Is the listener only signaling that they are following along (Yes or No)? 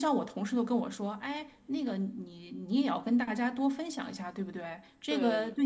Yes